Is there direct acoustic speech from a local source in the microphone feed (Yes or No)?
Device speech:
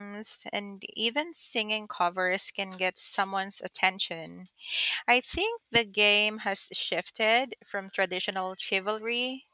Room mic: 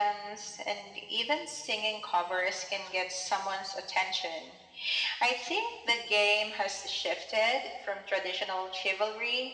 No